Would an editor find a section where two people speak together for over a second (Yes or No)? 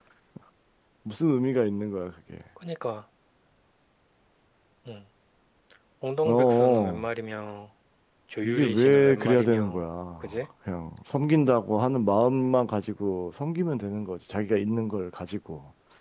Yes